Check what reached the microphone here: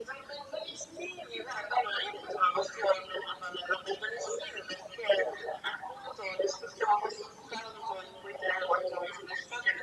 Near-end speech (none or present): none